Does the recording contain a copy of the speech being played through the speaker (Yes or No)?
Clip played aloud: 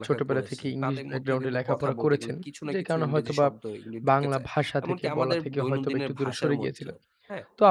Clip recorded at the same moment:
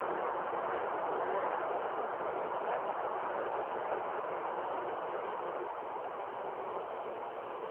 No